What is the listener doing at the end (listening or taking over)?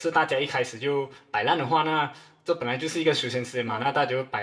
listening